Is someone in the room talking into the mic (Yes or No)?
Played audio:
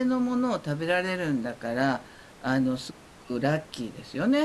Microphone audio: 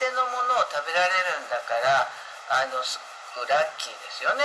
No